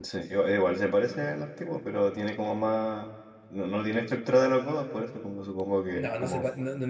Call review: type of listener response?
taking over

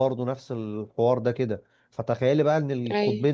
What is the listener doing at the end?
listening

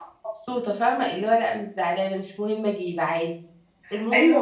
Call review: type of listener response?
taking over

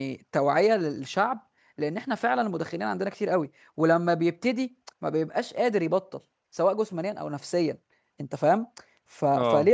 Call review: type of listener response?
listening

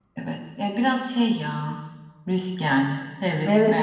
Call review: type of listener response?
taking over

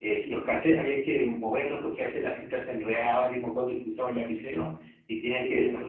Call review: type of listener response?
listening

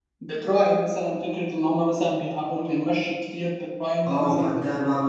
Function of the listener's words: taking over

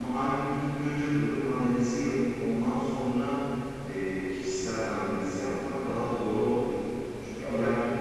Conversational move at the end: listening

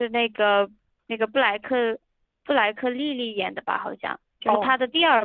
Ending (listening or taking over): listening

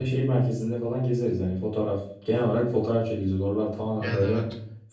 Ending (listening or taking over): listening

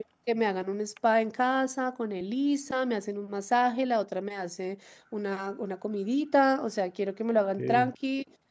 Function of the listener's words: listening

